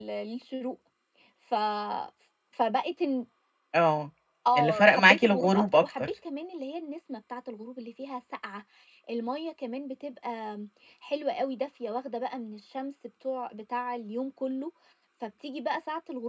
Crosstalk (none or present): present